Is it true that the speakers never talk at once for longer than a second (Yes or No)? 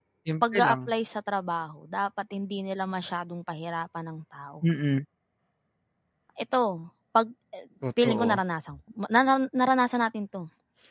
Yes